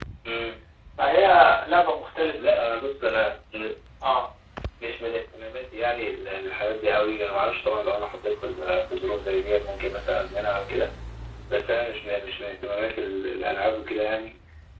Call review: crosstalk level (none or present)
none